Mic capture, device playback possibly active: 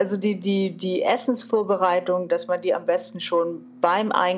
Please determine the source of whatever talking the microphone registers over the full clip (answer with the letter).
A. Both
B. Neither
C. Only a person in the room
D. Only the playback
D